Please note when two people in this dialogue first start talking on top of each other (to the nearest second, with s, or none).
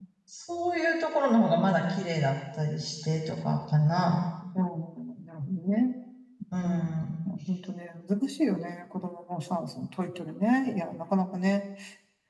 none